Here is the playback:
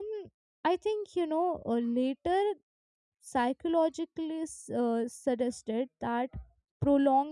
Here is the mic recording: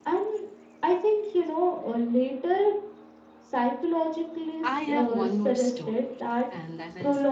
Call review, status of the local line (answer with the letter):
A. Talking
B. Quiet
A